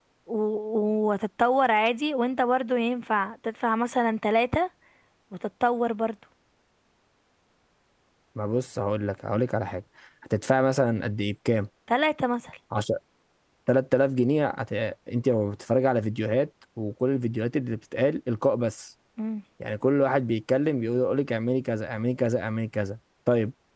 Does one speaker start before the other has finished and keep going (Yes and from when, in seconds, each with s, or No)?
No